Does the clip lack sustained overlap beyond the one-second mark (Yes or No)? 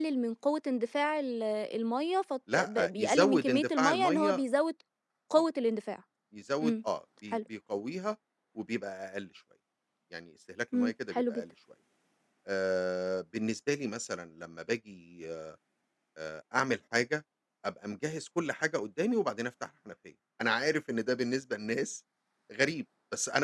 No